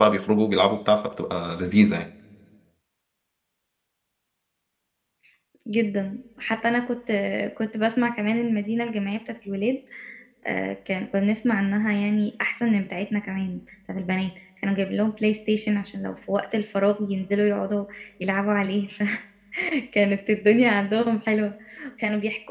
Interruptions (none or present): none